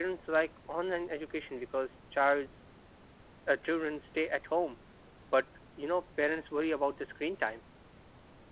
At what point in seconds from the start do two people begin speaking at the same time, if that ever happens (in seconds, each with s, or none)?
none